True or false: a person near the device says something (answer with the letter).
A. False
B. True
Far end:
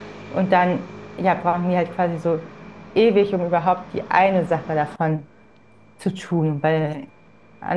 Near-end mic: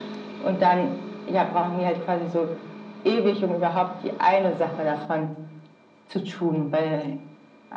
A